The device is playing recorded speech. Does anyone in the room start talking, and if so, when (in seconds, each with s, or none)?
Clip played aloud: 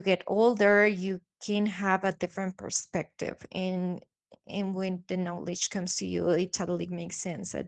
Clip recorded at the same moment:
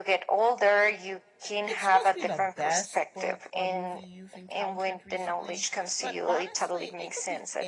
1.4 s